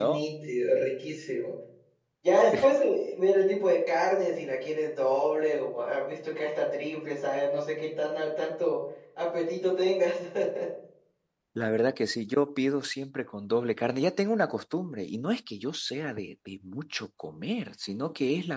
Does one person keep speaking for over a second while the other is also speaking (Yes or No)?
No